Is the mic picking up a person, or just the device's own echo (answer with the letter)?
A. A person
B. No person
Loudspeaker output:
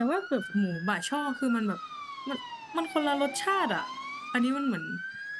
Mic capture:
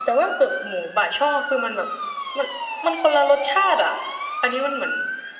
B